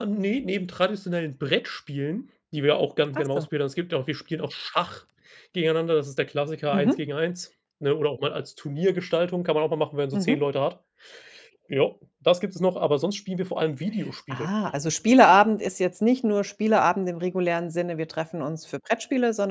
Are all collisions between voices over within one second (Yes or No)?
Yes